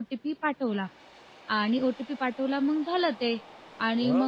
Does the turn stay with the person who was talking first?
Yes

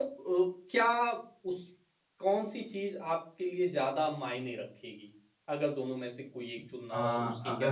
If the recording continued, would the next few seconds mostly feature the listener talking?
Yes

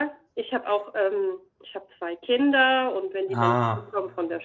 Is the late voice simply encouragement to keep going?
Yes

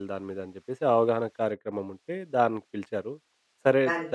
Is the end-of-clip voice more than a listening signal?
No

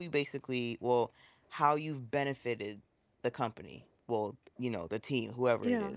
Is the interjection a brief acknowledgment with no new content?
Yes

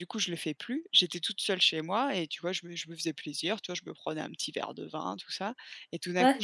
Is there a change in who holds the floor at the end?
No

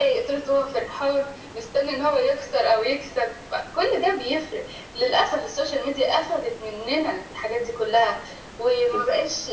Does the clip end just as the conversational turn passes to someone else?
No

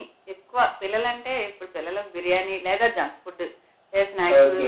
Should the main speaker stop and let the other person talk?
Yes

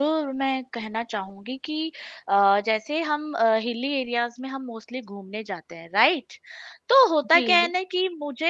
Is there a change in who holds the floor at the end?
No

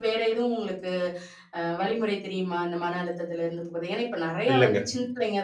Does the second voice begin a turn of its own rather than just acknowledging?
No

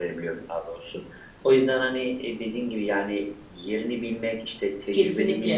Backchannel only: Yes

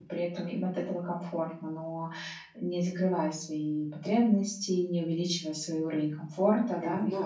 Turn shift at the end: Yes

